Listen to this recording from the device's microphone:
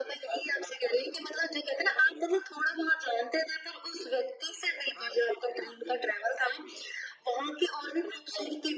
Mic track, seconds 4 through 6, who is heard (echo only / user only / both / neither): echo only